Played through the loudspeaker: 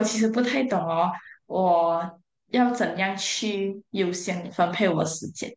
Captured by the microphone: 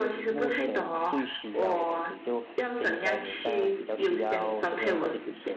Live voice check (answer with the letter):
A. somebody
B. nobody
A